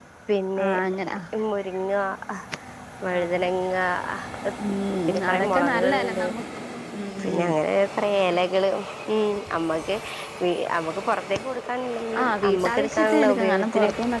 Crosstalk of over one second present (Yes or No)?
Yes